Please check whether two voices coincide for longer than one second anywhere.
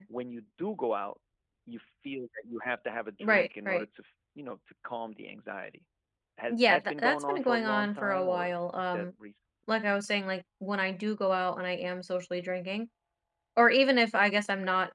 Yes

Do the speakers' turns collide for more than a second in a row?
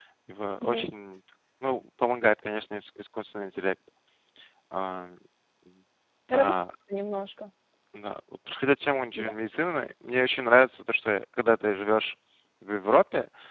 No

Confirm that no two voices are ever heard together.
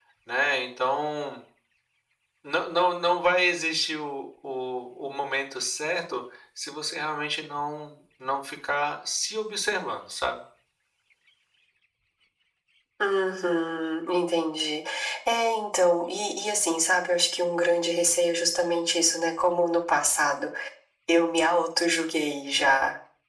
Yes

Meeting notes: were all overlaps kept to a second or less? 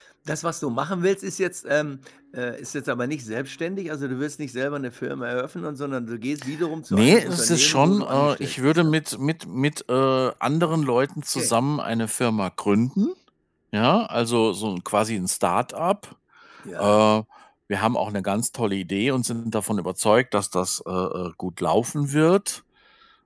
No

